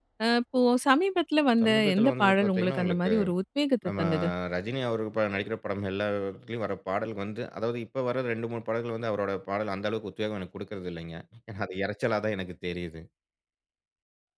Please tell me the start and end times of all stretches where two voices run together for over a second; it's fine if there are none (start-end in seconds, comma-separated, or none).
1.6-3.1